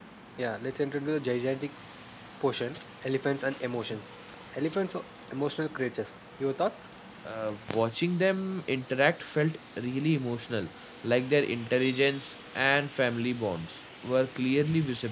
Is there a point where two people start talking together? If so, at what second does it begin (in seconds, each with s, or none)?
none